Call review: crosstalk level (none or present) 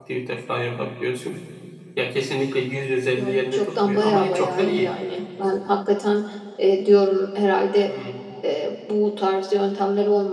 present